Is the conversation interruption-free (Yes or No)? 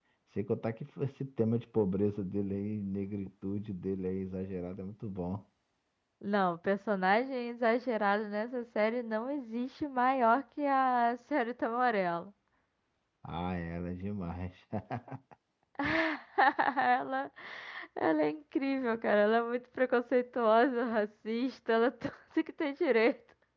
Yes